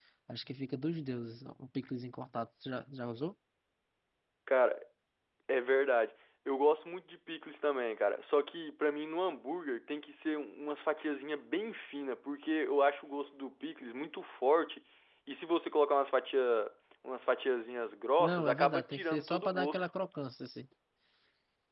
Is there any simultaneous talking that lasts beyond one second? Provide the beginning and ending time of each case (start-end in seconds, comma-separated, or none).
18.2-19.8